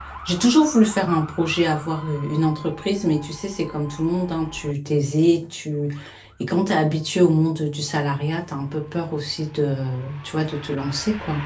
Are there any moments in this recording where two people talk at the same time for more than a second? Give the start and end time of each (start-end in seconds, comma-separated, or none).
none